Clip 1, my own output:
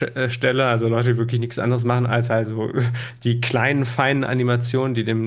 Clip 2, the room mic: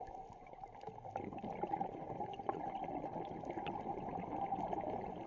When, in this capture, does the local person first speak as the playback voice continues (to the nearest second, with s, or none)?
none